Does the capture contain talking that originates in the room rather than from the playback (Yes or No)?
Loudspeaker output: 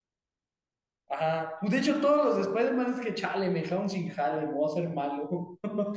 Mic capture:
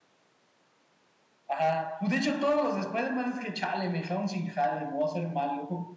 No